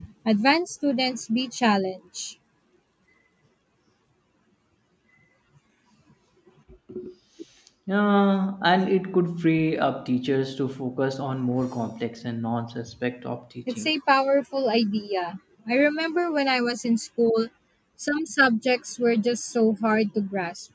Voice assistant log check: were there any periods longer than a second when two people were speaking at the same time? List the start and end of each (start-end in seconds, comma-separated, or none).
none